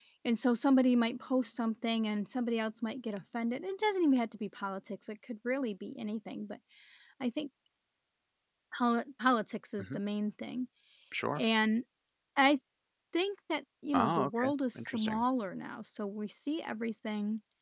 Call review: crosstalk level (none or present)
present